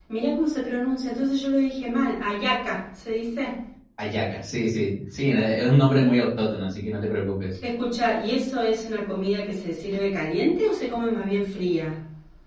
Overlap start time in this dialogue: none

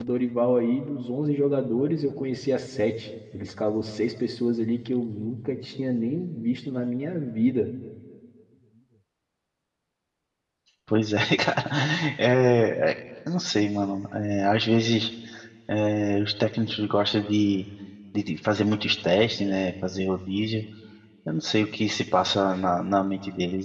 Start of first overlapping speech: none

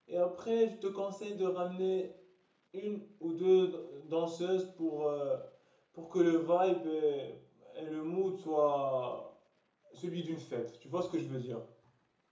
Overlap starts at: none

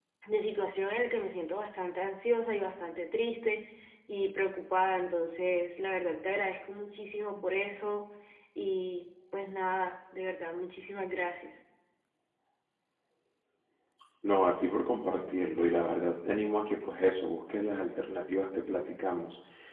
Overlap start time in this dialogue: none

